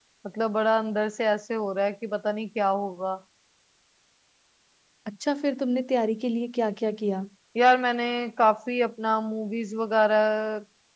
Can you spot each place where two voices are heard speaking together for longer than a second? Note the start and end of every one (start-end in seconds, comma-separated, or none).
none